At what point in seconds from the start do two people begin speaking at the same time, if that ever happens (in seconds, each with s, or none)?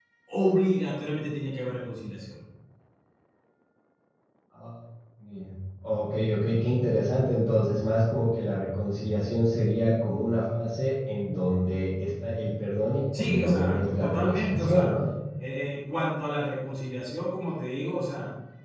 13.1 s